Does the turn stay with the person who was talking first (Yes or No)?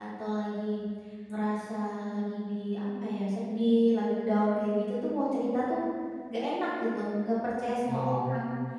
No